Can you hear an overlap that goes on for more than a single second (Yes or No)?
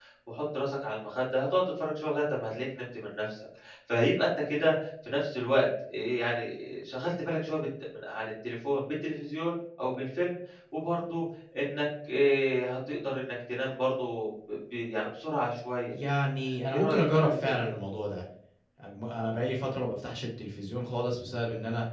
Yes